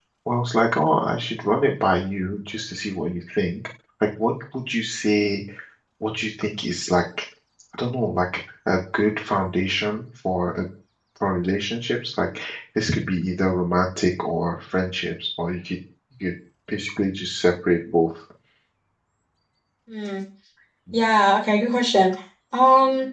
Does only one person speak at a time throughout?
Yes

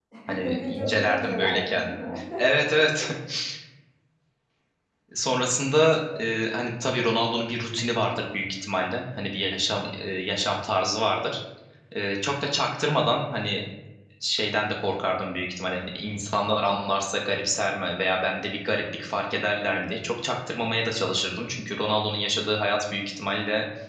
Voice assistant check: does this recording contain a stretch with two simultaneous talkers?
Yes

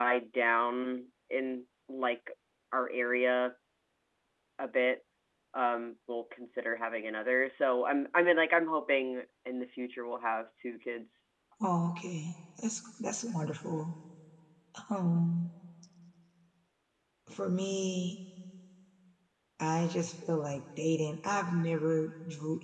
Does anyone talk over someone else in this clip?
No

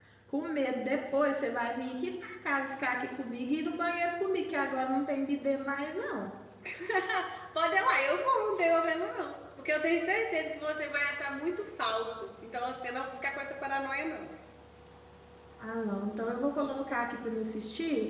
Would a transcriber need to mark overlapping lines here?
No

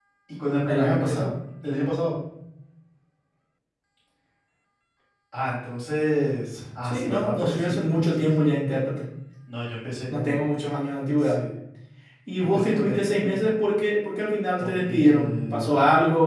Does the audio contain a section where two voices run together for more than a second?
Yes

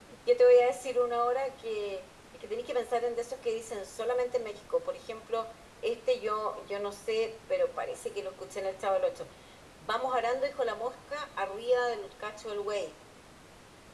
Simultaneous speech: No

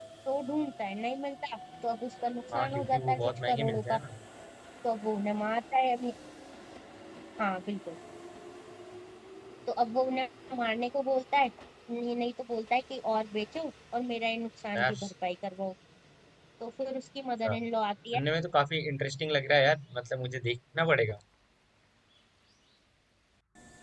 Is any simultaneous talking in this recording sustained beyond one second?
Yes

